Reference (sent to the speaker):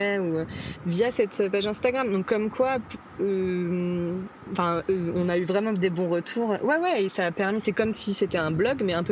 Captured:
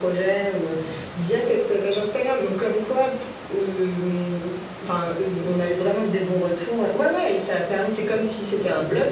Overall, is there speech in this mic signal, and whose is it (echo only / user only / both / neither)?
echo only